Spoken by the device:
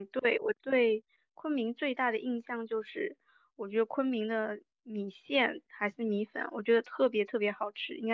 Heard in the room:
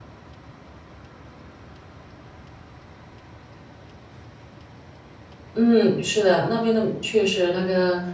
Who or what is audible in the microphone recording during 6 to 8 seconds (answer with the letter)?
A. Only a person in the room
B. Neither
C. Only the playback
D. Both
A